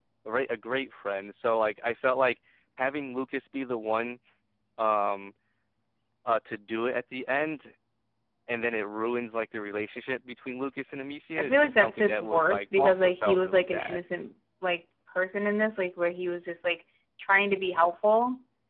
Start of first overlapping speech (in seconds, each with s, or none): 11.4 s